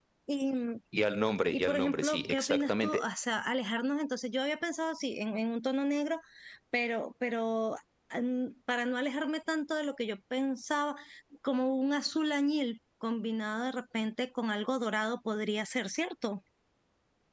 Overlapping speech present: Yes, from 1.5 s

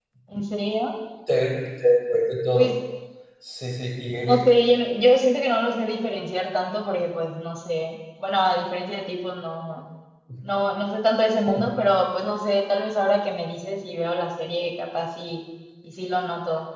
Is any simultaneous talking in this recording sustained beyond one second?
No

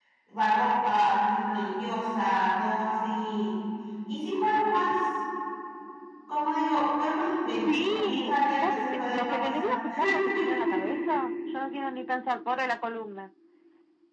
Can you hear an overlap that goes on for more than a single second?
Yes, from 7.6 s

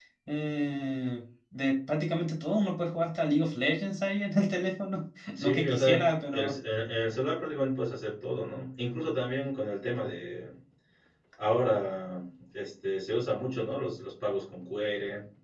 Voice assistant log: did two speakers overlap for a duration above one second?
Yes, from 5.3 s

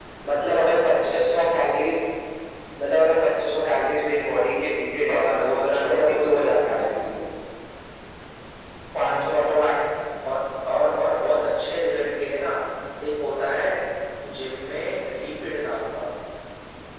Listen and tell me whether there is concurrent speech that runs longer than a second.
Yes, from 5.1 s

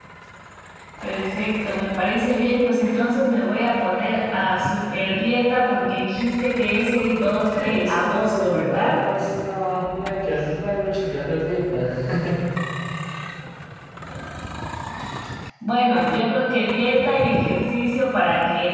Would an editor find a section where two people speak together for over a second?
Yes, from 7.5 s

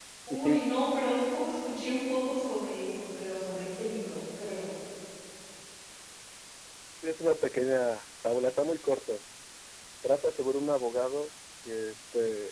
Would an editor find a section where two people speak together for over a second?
No

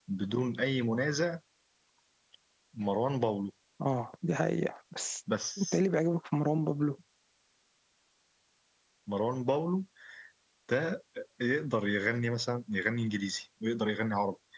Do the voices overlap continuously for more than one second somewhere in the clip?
No

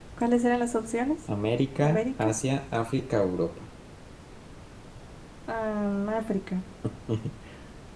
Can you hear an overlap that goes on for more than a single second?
No

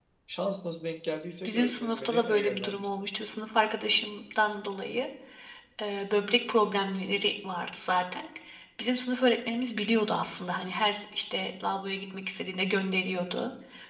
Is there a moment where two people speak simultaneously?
Yes, from 1.4 s

